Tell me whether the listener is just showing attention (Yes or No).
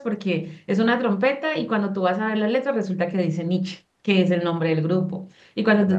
Yes